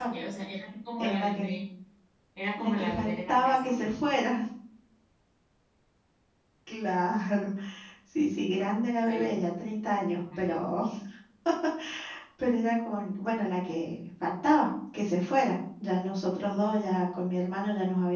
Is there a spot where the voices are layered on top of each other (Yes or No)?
Yes